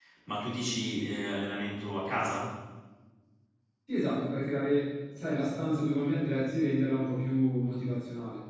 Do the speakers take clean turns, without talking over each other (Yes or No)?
Yes